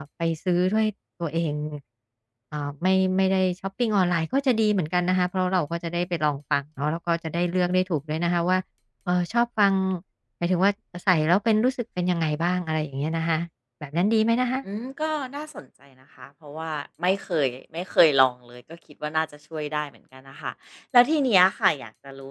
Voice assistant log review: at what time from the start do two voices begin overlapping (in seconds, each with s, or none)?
none